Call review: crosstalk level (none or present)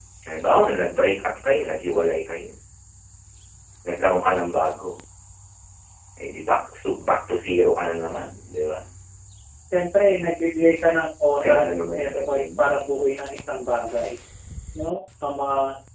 present